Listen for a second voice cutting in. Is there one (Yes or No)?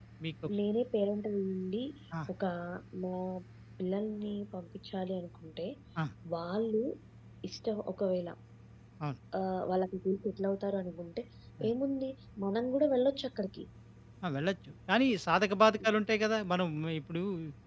No